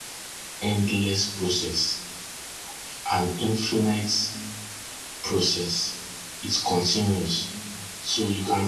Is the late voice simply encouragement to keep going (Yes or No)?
Yes